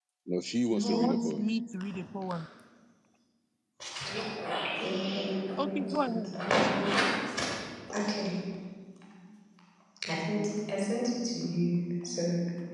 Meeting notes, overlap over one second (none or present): present